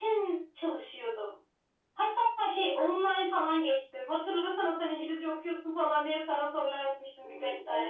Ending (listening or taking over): taking over